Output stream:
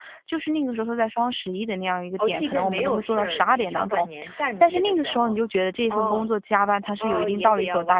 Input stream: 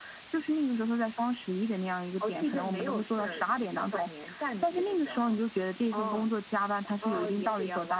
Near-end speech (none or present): none